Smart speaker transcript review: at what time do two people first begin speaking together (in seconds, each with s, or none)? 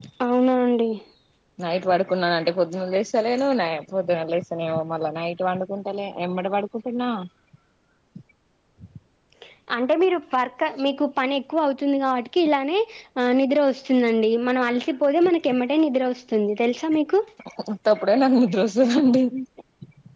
none